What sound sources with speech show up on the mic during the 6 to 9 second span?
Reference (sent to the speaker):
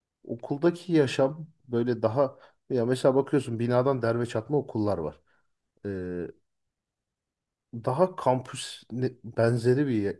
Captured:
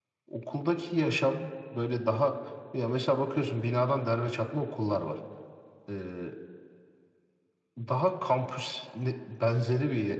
echo only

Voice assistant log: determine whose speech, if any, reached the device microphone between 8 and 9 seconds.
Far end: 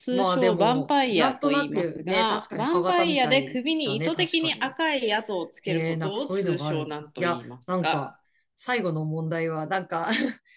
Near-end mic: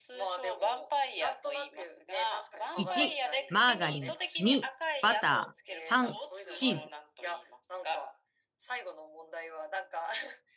echo only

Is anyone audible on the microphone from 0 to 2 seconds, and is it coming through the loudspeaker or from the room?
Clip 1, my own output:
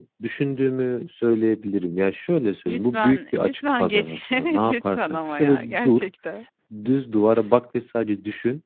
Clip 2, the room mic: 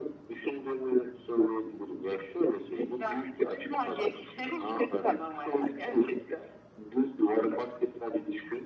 echo only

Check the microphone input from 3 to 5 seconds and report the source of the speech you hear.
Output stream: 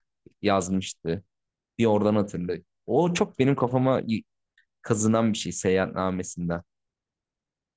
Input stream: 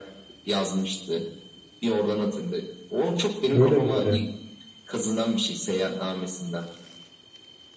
both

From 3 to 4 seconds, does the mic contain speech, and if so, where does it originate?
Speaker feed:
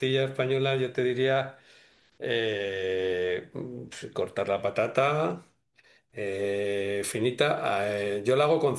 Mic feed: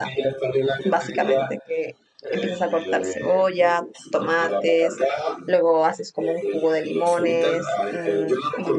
both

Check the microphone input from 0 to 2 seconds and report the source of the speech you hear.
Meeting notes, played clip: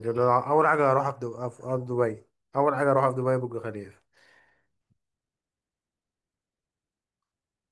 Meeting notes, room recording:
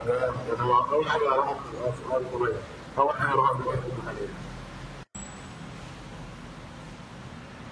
echo only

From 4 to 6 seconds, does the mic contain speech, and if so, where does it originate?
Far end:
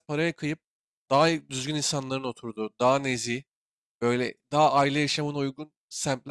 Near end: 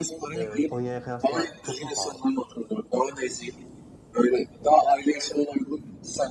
echo only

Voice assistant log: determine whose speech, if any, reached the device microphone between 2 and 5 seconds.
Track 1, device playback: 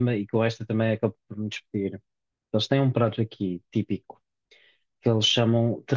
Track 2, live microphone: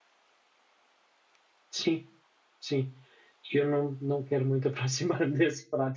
user only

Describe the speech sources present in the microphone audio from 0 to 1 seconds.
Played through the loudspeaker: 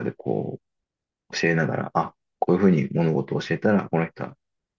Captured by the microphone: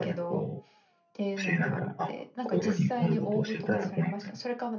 both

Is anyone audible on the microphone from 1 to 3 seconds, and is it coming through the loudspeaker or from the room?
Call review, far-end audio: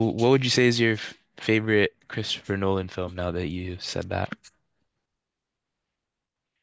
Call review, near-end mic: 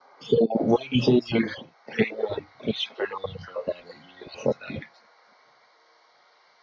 echo only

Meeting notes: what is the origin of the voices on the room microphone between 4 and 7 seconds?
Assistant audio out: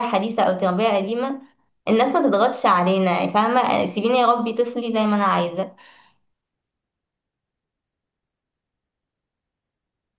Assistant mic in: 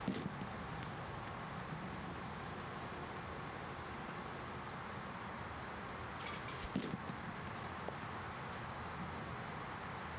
neither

